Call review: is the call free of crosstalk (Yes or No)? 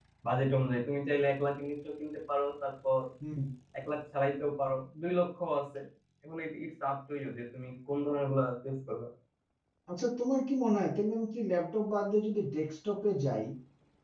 Yes